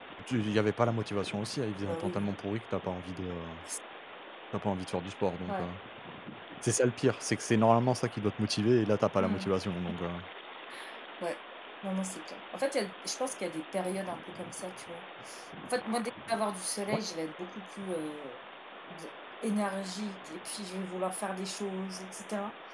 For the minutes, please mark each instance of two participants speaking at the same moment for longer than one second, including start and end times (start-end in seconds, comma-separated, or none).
none